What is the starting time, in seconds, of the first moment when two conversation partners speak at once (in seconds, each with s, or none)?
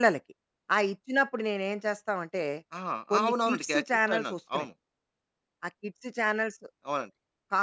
3.1 s